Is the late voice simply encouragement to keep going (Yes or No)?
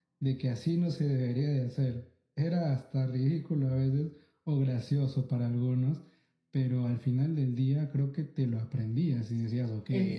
No